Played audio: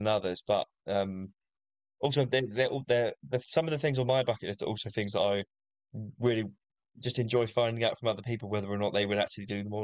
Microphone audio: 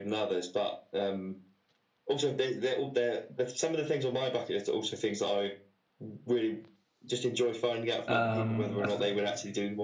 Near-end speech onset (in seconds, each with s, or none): 8.1 s